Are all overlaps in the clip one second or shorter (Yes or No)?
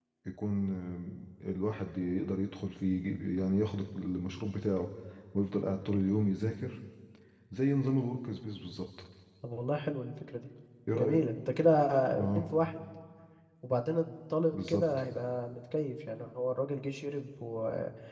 Yes